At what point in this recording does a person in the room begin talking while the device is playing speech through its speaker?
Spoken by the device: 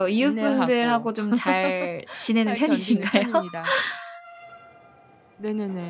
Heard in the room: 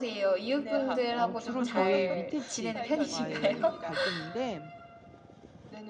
1 s

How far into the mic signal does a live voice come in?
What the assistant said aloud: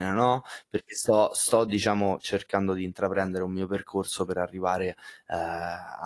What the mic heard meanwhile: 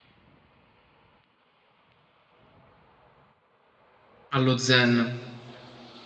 4 s

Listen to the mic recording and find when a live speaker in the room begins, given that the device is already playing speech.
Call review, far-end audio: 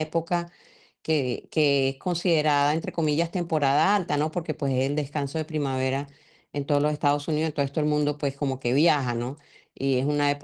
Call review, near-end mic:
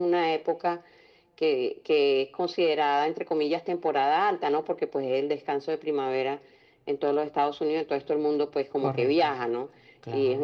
9 s

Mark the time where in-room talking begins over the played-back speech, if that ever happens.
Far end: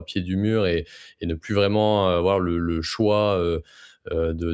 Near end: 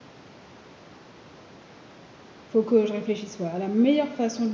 2 s

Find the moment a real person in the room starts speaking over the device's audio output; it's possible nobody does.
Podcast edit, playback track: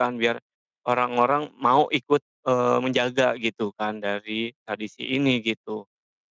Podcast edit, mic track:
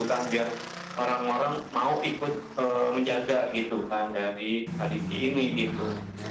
none

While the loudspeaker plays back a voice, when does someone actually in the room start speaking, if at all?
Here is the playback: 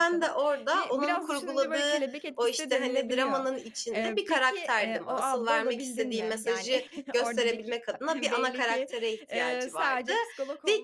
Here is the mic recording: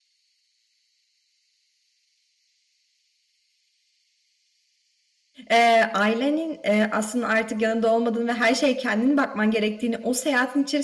5 s

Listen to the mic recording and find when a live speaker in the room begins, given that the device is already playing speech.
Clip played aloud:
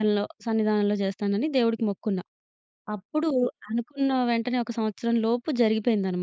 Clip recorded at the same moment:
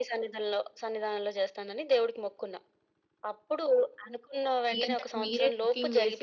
5 s

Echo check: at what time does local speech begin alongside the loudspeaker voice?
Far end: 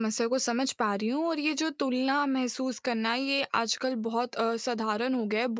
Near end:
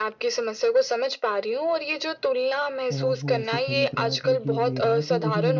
3 s

